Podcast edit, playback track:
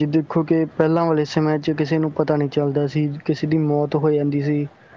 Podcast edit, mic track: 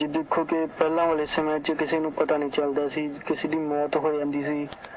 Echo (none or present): present